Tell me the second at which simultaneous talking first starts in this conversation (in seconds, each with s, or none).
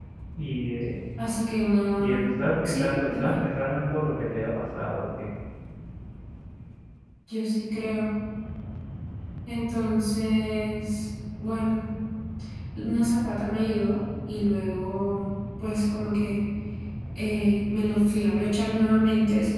2.0 s